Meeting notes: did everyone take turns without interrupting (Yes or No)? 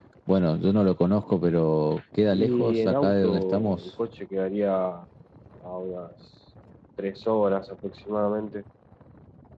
No